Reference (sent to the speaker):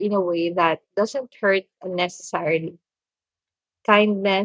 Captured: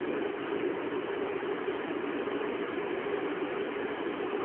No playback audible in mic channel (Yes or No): Yes